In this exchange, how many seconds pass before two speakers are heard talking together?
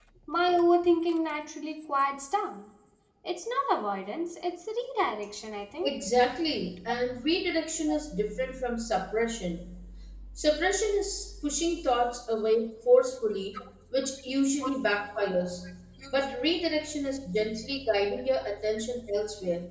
none

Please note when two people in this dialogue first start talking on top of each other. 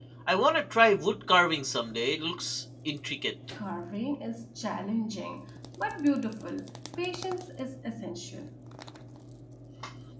none

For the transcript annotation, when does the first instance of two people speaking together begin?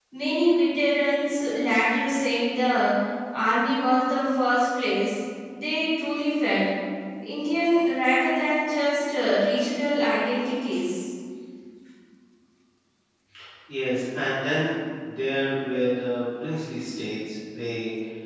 none

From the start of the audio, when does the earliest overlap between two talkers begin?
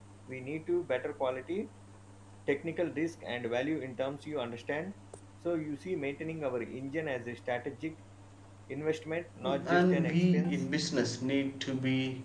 9.4 s

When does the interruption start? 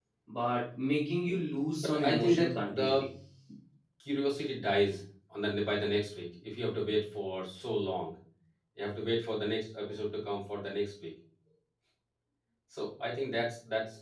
1.8 s

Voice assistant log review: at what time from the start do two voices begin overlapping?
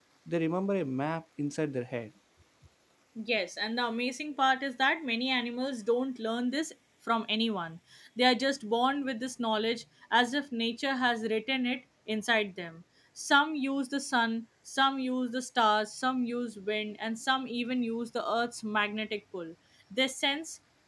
none

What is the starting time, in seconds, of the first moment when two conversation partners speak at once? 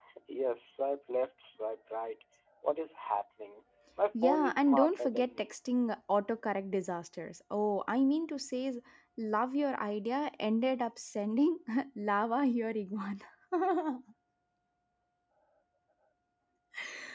4.1 s

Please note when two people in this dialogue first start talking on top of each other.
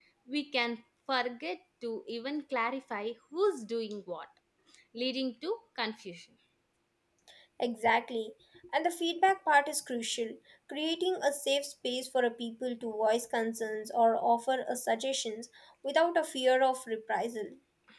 none

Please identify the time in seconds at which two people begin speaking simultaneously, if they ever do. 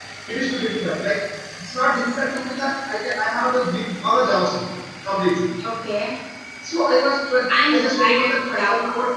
7.5 s

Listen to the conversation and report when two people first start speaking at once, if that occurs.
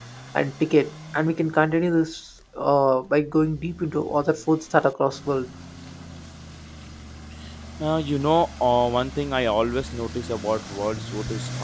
none

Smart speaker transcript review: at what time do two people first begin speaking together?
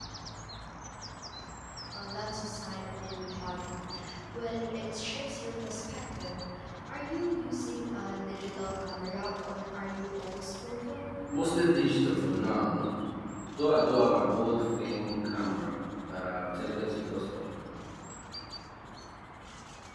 none

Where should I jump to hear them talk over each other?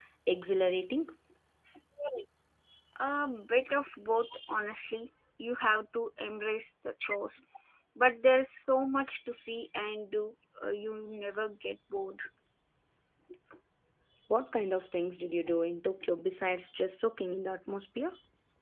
none

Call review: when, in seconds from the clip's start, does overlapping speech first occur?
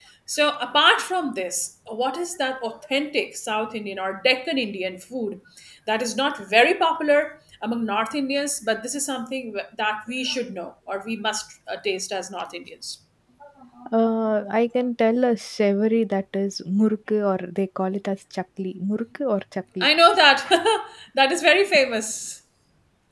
none

